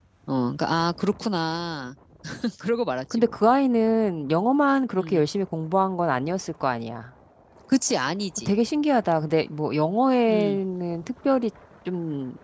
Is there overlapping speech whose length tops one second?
No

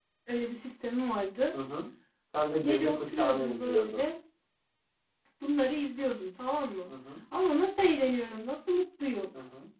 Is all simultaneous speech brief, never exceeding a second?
No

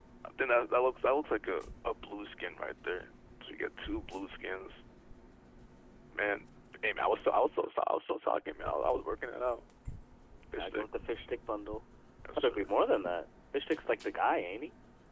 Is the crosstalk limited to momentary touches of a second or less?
Yes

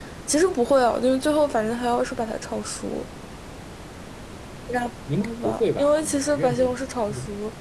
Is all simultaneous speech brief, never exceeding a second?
No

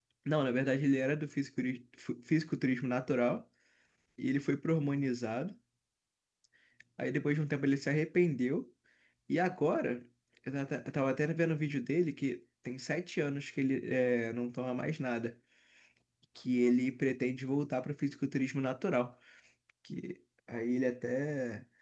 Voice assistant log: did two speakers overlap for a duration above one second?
No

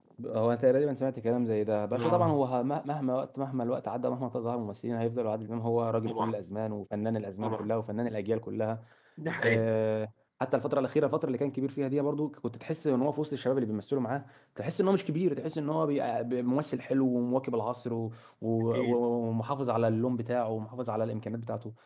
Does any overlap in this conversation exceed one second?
No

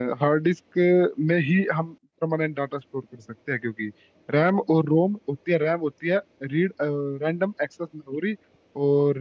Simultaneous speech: No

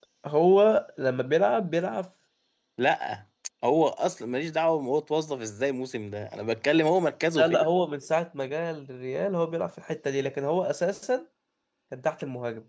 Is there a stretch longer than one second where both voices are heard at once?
No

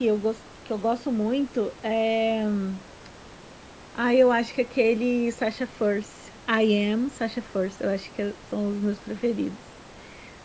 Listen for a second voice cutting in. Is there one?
No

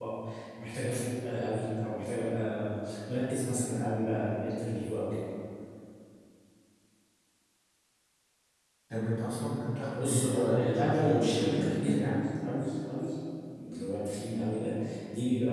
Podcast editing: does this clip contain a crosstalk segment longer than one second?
Yes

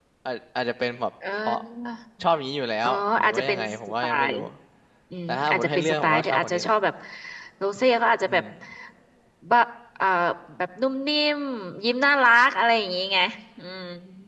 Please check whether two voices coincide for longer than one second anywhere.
Yes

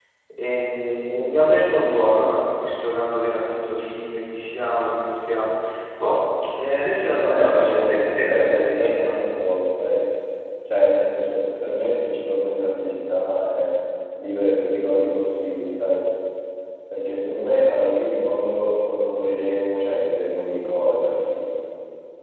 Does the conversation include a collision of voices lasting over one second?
Yes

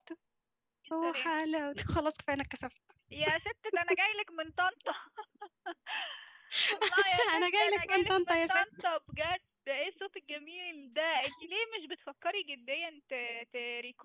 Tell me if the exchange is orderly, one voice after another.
No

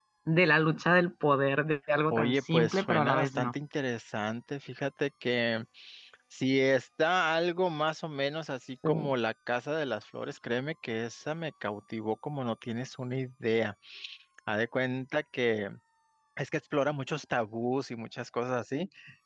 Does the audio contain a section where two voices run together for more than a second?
Yes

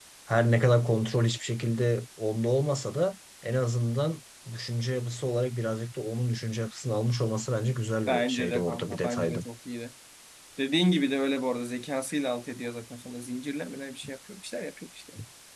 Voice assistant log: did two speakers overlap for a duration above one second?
Yes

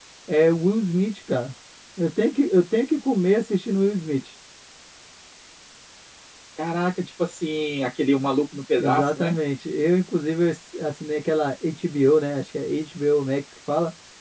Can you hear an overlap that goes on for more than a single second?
No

